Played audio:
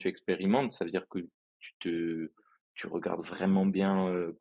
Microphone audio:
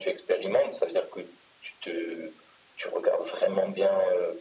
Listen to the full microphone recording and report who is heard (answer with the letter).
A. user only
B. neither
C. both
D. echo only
D